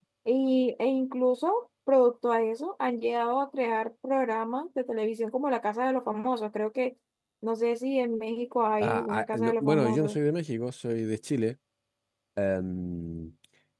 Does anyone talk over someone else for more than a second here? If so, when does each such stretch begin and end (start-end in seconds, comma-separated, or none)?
8.8-10.2